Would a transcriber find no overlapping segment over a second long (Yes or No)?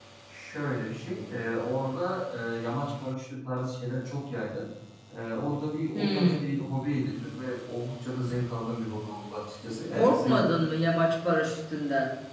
Yes